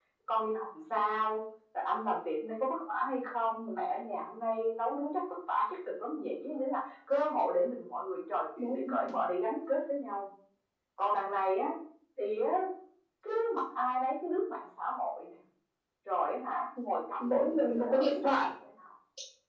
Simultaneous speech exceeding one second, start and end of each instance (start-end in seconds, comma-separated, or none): 17.2-18.5